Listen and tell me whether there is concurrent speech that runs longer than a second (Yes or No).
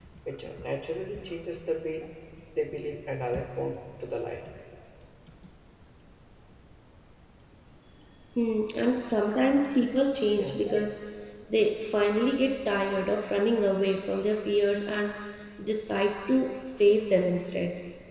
No